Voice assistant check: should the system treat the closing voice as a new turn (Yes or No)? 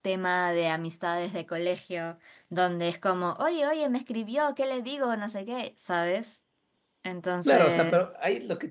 Yes